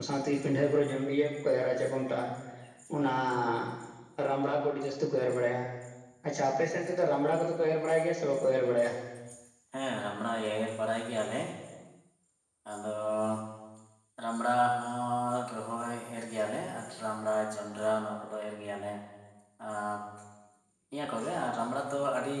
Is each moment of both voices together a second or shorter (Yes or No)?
Yes